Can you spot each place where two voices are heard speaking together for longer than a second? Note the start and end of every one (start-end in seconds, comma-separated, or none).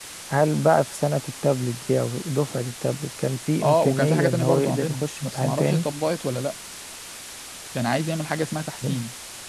3.6-5.8